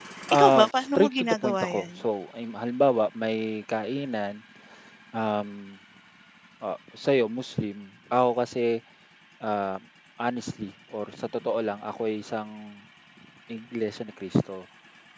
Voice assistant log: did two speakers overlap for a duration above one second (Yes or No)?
Yes